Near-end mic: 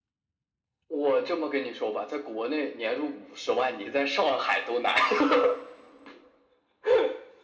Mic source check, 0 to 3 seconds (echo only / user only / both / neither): echo only